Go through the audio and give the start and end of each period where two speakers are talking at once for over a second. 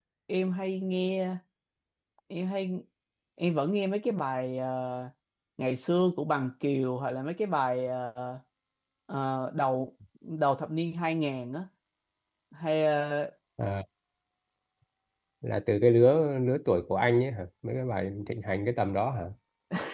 none

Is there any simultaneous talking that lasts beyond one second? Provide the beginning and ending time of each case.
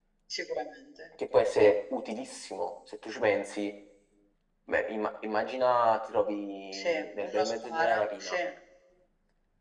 6.7-8.4

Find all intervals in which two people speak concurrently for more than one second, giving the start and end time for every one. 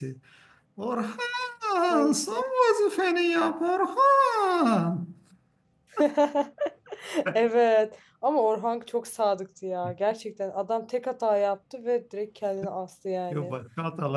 none

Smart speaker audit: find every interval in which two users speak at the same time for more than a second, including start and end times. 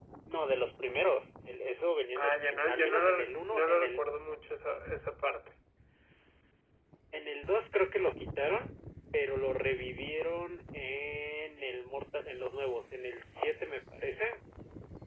2.2-4.0

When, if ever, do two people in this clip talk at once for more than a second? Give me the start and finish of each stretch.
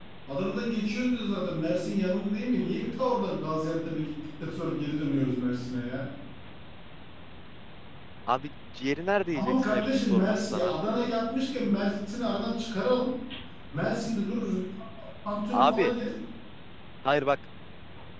9.3-10.8

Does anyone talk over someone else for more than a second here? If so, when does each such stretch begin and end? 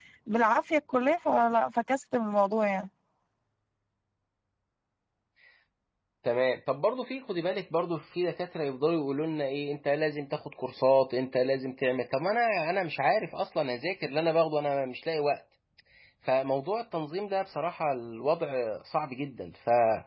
none

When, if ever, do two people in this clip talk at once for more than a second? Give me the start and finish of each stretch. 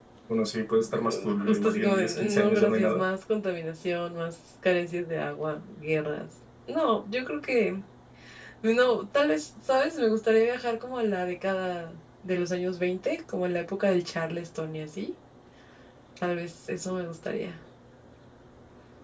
1.0-3.0

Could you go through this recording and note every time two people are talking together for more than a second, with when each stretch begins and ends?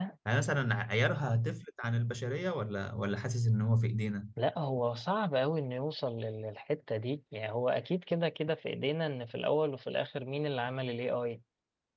none

